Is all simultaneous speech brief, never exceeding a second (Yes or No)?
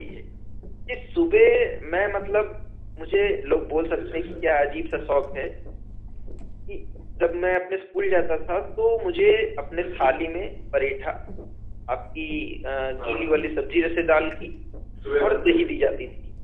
Yes